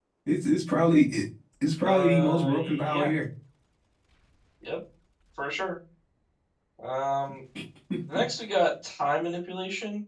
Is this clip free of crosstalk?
No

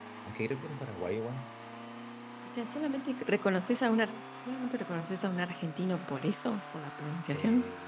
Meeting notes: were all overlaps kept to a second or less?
Yes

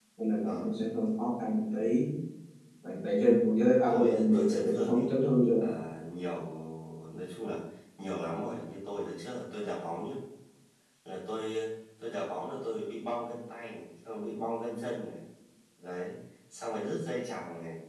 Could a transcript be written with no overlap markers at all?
No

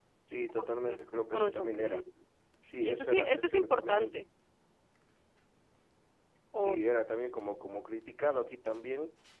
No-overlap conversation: No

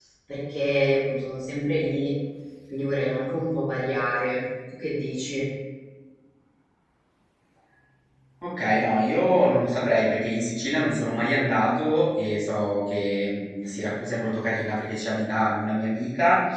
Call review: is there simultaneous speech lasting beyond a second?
No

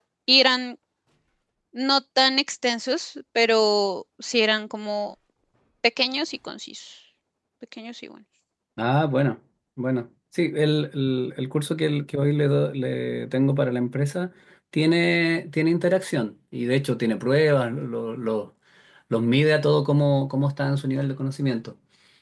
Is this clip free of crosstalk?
Yes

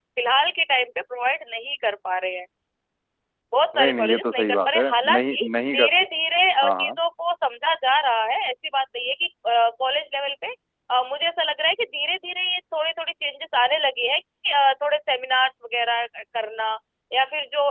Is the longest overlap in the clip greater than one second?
Yes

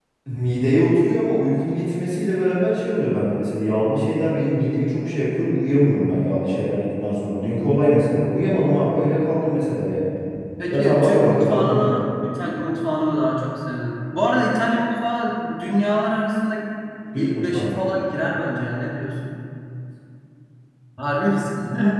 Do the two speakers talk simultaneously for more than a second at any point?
Yes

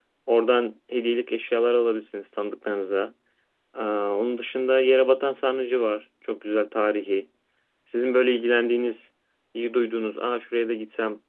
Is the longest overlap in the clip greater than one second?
No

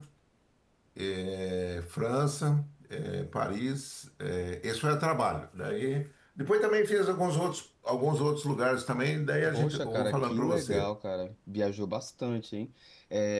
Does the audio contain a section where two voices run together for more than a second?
Yes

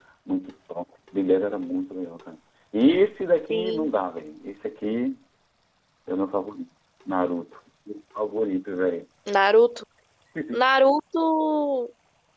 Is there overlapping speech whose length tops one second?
No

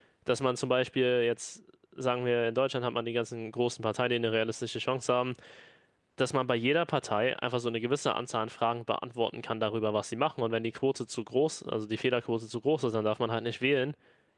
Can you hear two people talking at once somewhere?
No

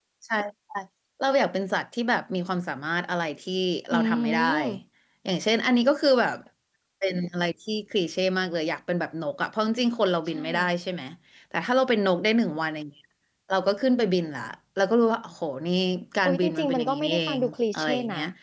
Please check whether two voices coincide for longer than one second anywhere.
Yes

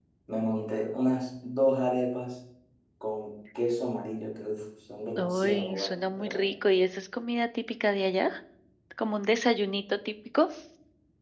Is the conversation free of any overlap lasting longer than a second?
No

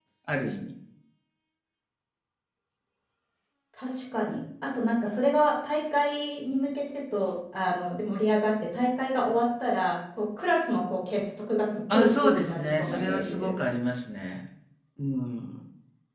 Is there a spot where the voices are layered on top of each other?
Yes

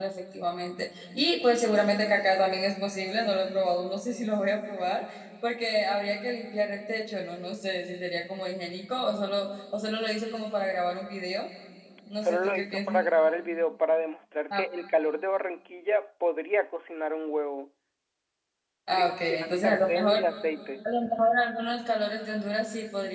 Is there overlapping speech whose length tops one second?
Yes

